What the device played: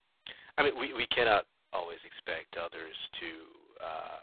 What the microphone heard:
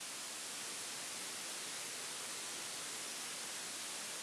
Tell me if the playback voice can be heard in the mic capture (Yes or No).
No